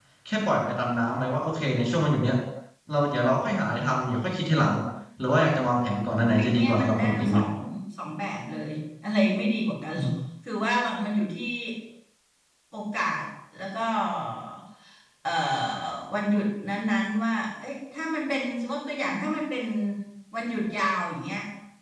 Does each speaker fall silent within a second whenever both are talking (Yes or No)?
No